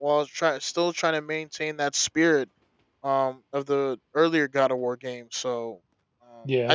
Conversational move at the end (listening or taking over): listening